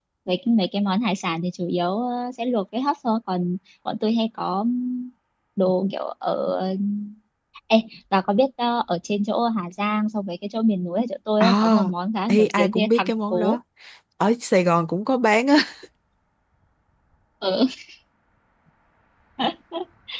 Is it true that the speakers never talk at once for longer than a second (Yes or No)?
No